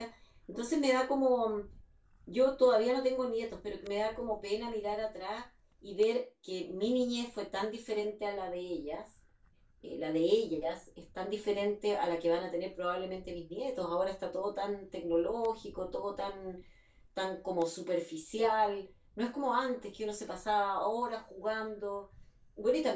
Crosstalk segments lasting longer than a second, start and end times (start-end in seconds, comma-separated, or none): none